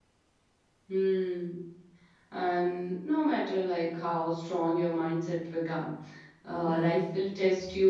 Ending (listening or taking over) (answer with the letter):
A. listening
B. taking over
A